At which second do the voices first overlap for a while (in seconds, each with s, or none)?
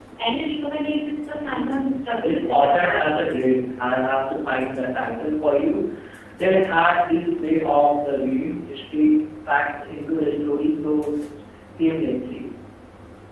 1.4 s